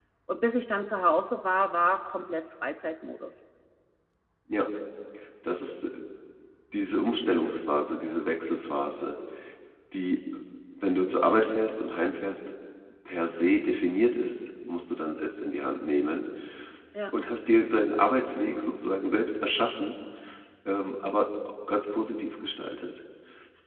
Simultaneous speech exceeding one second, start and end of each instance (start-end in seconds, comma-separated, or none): none